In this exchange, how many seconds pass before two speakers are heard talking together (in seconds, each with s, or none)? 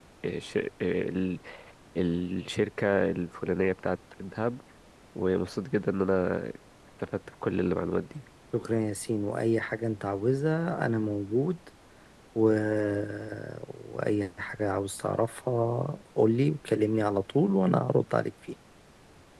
none